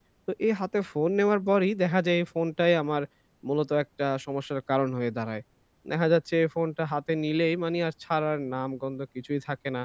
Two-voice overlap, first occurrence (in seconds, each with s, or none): none